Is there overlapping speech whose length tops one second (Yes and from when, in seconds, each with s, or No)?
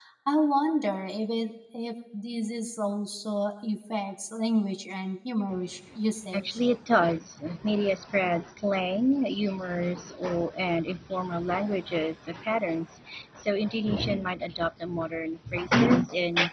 No